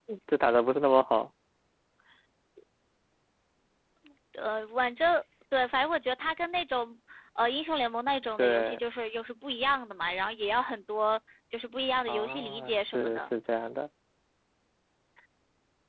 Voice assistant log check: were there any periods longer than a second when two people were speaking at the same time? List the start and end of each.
12.1-13.3

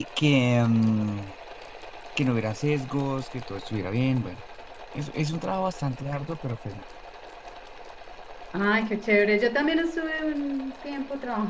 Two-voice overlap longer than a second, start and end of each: none

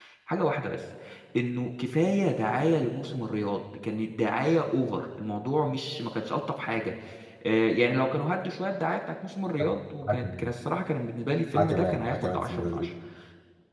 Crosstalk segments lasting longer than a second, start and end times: 11.5-12.9

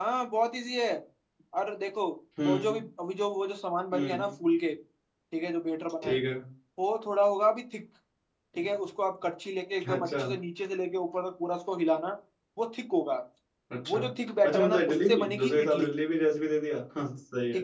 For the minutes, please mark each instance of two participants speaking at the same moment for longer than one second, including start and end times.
14.4-15.9

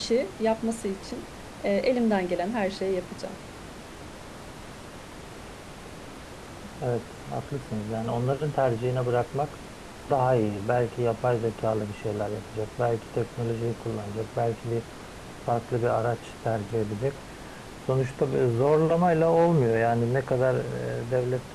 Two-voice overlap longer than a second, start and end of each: none

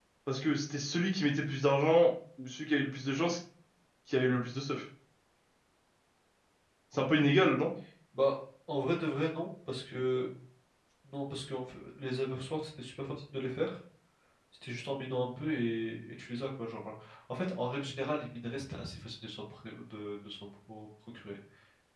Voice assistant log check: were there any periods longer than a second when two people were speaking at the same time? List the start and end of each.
none

